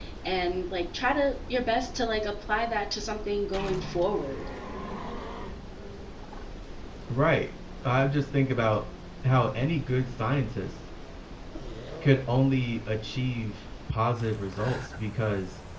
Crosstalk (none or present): none